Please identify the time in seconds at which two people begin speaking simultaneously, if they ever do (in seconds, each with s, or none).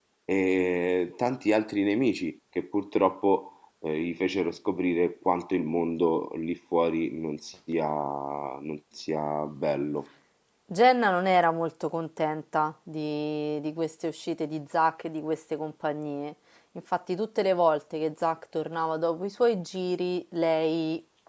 none